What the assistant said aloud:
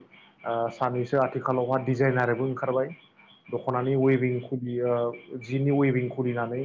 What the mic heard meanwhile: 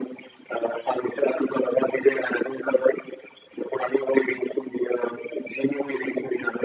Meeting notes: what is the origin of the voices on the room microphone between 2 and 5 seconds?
echo only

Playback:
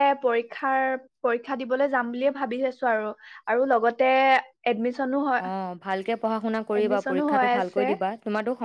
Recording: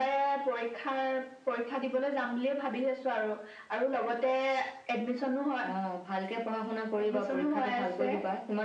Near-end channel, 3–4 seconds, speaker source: echo only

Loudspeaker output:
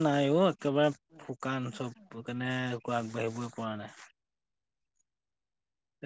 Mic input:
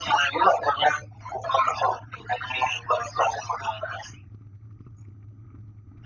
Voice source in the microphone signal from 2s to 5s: echo only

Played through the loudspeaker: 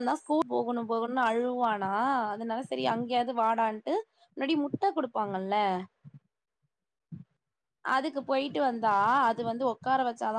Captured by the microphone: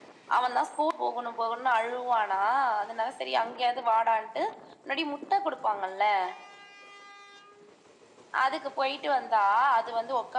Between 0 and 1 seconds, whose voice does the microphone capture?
echo only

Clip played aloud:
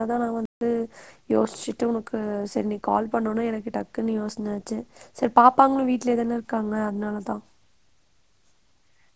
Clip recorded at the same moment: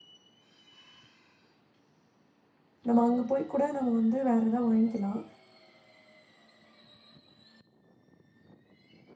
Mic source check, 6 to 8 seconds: neither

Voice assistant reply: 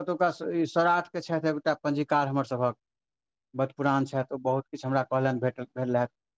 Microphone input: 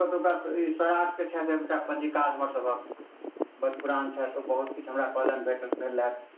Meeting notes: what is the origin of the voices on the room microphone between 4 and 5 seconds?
echo only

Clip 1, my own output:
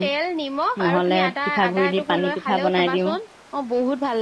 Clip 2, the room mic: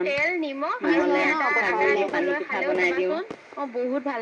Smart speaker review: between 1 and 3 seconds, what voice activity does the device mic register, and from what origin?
both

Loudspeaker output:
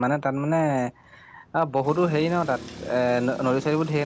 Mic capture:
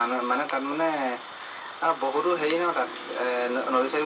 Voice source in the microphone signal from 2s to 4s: echo only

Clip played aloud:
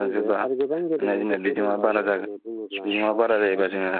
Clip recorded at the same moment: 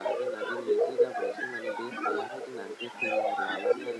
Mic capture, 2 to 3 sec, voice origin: both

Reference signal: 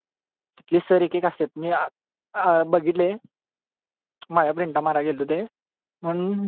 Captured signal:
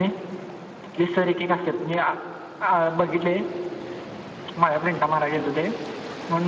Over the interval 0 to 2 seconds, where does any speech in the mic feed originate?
echo only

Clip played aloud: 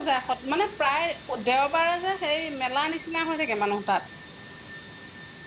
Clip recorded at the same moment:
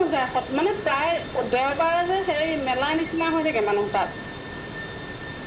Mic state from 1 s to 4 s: echo only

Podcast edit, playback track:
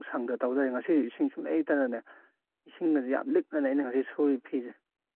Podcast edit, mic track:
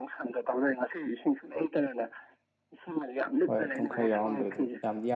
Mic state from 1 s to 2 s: echo only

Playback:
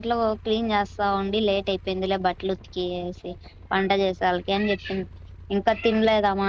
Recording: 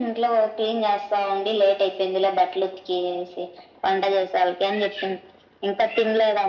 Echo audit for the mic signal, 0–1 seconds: echo only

